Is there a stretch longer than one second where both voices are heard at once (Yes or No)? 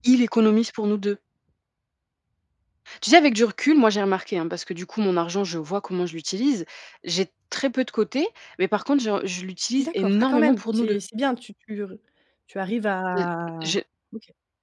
Yes